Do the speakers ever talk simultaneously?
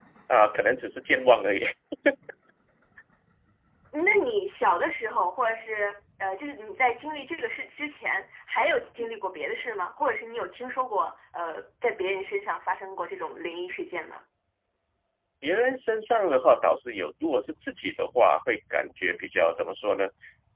No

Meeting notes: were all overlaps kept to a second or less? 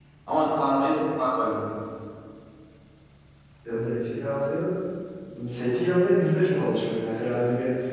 Yes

